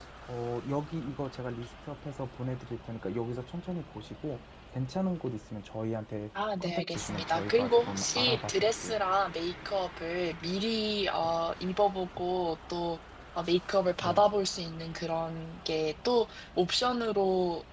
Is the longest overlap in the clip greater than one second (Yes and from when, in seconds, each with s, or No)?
Yes, from 6.6 s